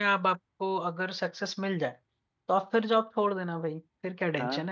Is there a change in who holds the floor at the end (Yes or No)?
Yes